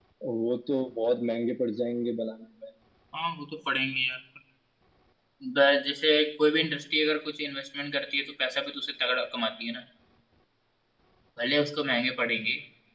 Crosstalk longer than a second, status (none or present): none